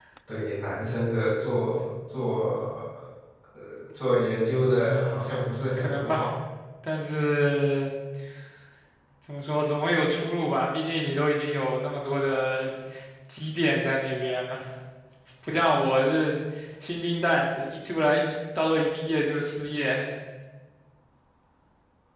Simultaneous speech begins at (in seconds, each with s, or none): 4.6 s